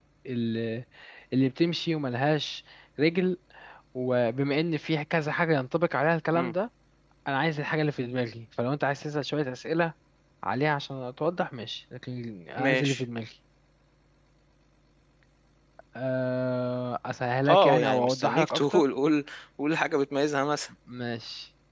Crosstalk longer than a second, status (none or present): present